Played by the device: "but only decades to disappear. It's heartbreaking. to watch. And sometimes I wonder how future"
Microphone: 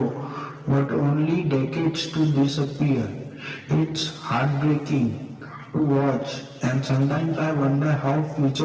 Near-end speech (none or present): none